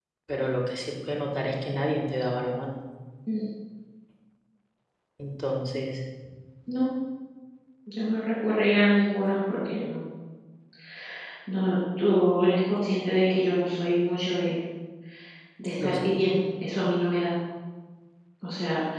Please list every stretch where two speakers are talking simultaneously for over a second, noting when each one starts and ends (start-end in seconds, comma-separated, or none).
none